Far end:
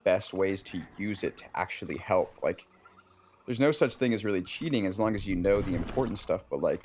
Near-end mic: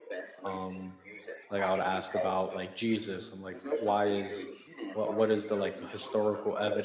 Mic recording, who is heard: both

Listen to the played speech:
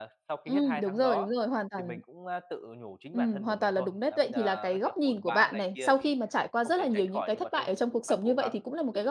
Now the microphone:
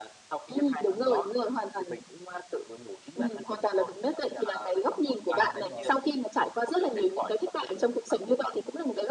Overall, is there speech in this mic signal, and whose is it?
both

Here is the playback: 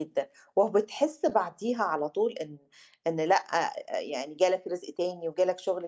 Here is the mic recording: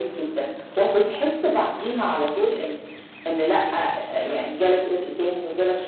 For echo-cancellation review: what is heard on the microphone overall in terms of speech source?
echo only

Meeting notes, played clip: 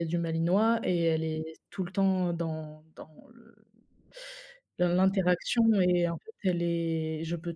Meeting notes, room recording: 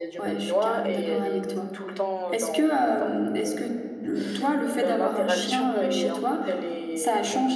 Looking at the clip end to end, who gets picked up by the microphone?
both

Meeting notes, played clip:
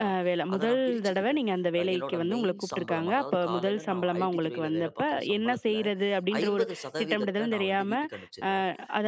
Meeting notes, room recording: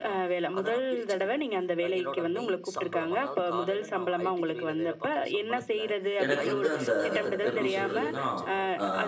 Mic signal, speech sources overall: both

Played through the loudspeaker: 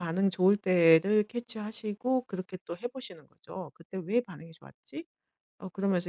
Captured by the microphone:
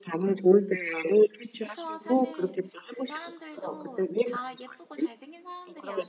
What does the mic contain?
both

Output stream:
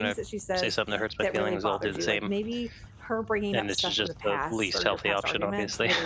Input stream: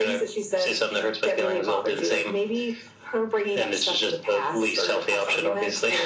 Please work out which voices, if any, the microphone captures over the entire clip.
echo only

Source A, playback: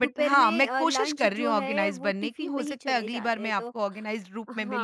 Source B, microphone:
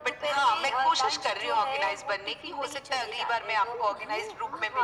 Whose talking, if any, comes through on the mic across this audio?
both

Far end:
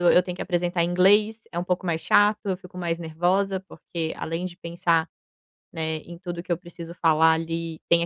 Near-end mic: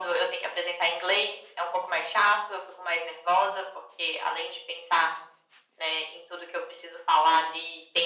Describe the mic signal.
echo only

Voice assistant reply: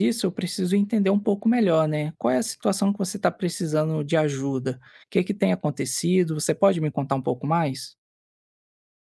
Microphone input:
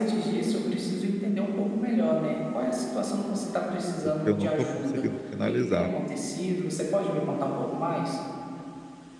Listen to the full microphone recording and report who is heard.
both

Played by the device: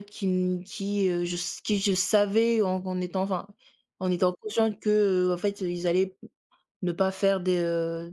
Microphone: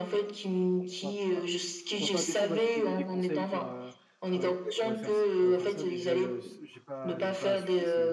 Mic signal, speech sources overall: both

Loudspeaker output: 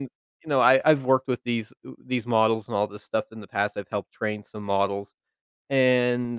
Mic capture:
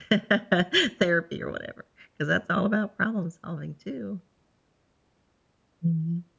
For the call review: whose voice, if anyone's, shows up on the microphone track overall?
user only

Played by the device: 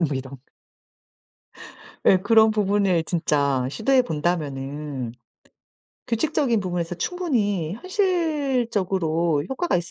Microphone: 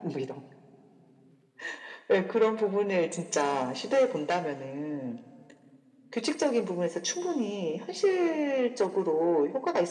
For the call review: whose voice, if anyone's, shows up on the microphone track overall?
echo only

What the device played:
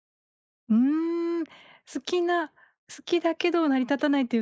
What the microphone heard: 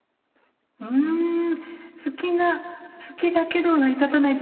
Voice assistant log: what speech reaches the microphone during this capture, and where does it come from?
echo only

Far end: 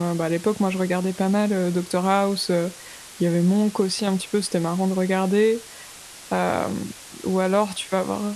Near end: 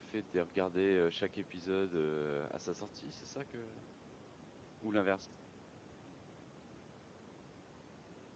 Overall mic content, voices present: user only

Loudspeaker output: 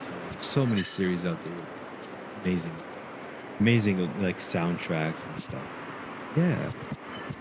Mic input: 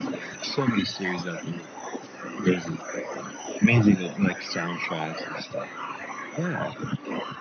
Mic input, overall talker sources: echo only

